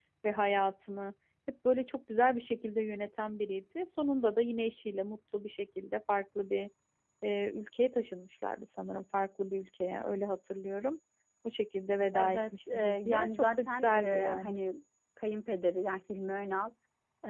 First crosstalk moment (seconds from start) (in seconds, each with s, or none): 12.2 s